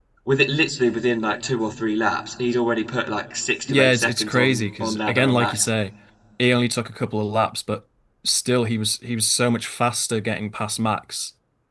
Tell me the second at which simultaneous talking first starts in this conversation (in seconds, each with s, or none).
3.7 s